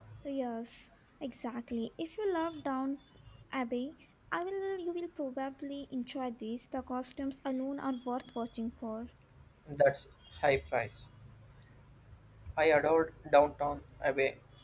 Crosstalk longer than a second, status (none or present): none